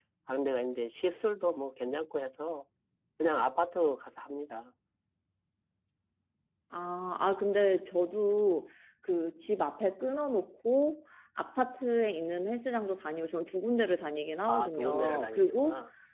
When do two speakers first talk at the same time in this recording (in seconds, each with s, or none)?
14.5 s